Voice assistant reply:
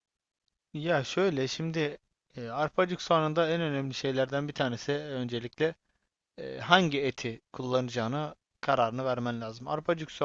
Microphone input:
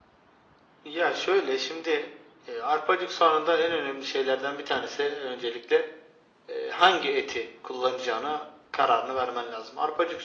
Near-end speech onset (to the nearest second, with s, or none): none